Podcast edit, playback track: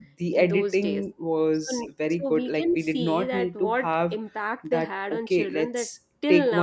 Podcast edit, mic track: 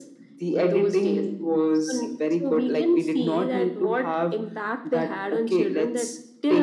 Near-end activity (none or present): none